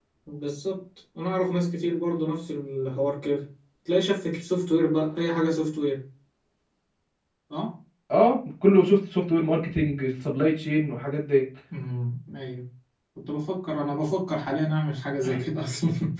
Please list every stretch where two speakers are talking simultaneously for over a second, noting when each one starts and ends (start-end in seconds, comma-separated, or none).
none